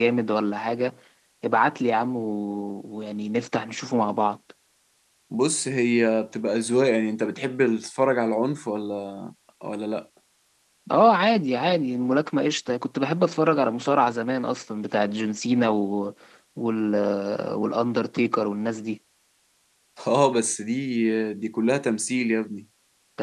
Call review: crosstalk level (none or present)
none